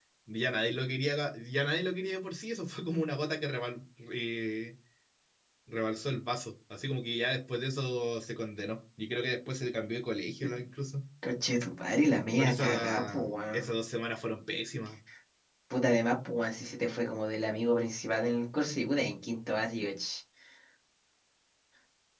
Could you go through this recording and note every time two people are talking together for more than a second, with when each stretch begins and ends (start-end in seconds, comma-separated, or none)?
12.4-13.7